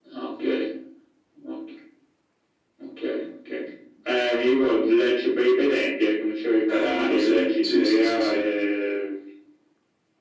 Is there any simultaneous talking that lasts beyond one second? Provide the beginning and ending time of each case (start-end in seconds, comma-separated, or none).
6.7-8.4